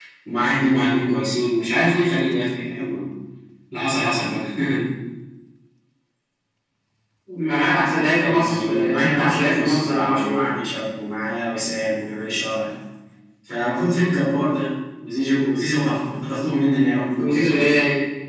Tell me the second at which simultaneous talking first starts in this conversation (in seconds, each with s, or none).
7.7 s